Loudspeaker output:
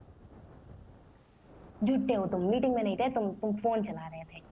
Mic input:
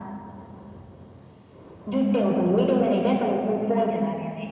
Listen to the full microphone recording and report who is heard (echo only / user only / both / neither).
echo only